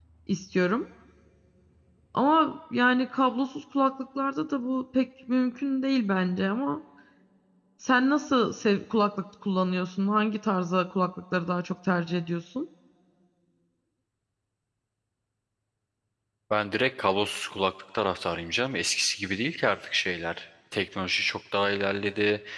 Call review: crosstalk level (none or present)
none